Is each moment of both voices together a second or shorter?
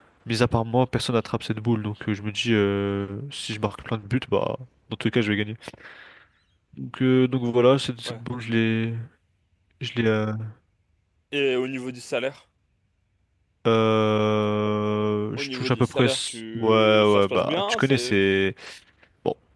No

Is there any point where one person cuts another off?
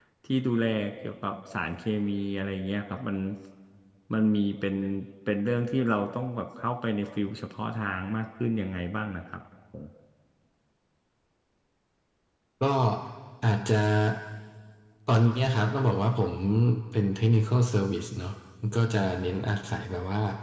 No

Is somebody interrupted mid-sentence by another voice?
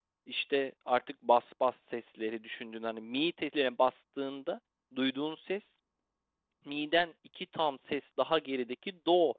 No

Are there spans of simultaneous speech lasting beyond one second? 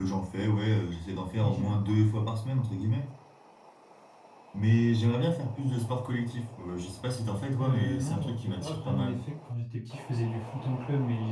Yes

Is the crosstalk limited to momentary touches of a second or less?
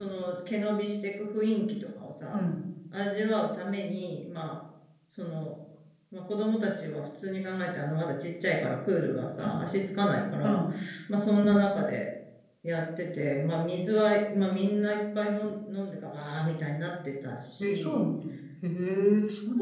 Yes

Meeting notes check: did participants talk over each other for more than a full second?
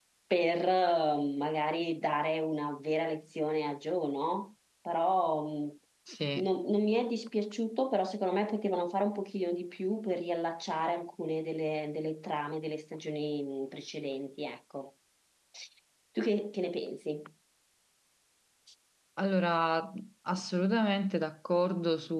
No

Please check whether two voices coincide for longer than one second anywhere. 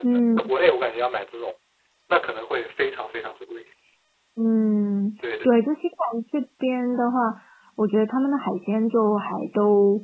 No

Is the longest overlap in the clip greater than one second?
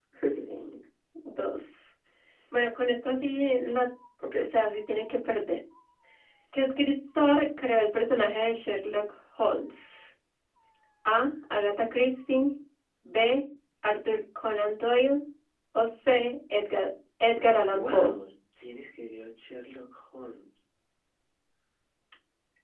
No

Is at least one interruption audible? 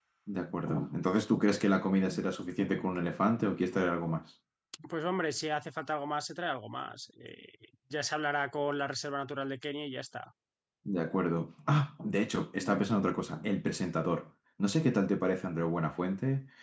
No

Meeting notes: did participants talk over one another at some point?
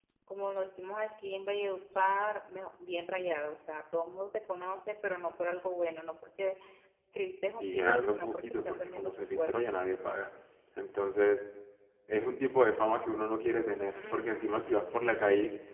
Yes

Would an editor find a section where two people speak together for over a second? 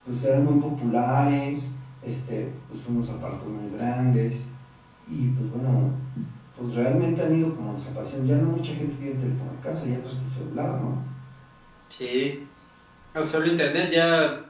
No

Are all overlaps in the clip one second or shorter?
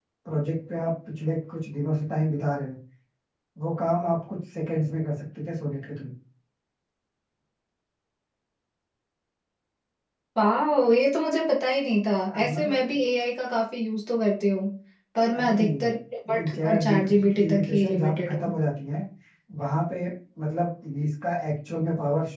No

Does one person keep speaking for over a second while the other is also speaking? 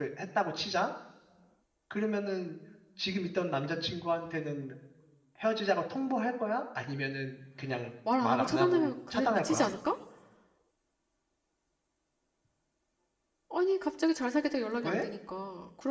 Yes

